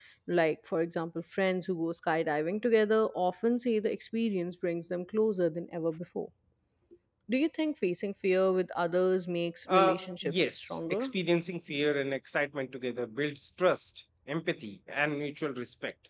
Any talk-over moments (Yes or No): Yes